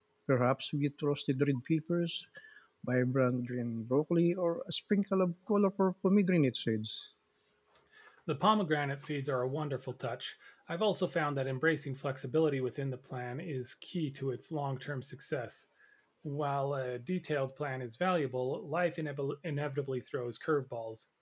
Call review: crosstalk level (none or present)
none